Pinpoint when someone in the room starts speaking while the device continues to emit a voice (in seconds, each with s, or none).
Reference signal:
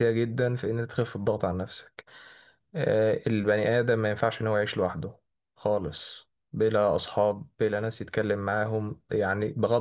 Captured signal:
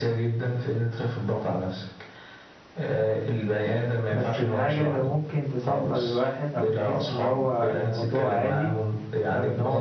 4.1 s